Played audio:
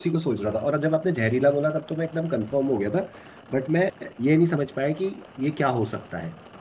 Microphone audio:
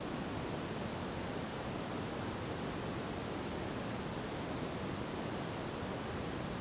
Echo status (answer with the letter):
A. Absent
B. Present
A